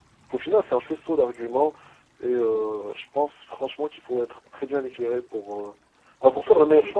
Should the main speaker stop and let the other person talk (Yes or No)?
Yes